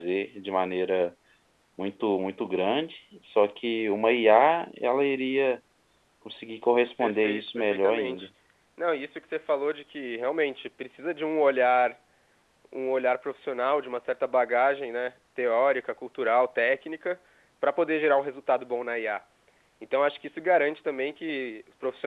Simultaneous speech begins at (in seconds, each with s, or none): 7.0 s